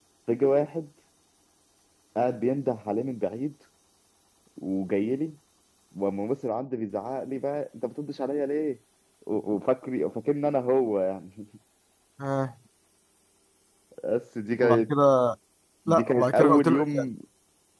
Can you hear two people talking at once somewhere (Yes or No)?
Yes